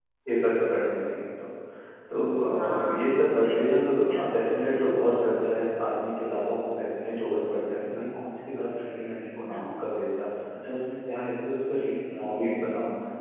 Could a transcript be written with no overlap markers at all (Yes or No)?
No